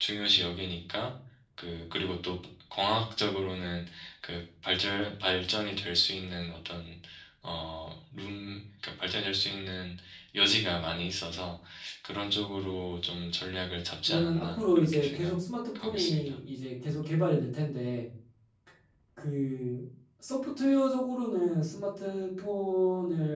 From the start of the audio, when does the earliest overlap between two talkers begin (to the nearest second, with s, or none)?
14 s